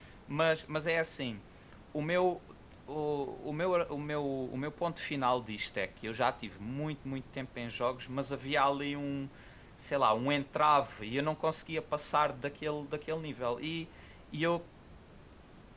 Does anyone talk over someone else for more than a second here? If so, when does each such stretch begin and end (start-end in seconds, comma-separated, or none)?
none